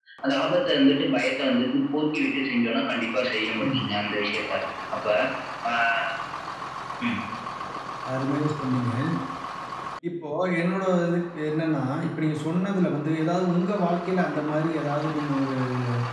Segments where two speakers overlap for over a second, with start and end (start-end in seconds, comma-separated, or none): none